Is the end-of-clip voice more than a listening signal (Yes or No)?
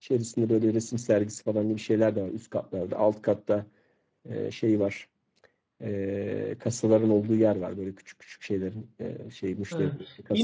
Yes